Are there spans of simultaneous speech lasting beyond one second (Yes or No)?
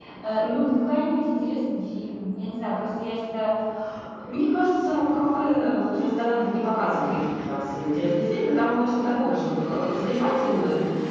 No